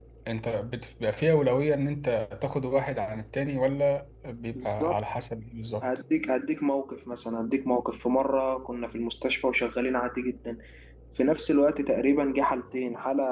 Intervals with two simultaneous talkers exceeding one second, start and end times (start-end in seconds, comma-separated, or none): none